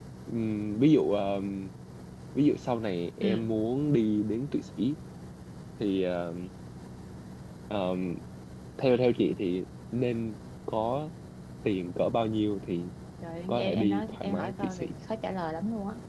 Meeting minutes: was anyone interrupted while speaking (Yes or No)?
Yes